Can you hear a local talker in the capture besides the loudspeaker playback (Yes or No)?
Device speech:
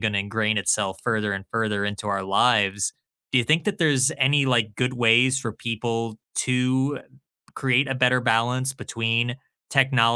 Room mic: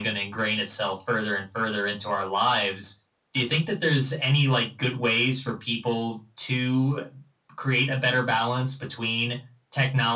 No